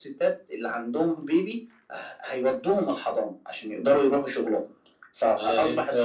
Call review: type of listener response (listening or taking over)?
taking over